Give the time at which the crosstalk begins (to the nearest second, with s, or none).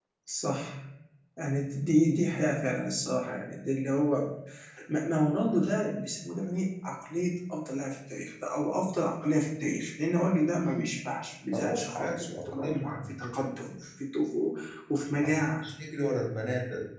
12 s